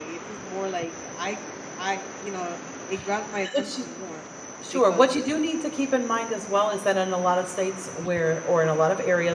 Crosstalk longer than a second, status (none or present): none